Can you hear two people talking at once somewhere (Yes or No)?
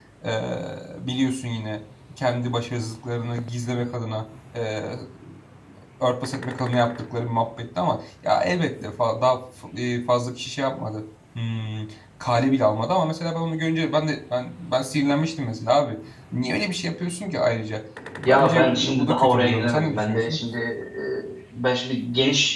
Yes